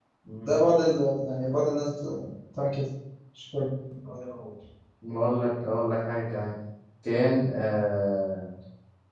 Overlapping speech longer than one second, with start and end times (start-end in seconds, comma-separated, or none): none